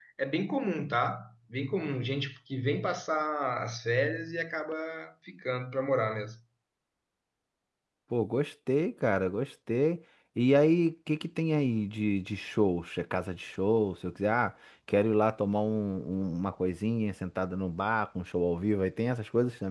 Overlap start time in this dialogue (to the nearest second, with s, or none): none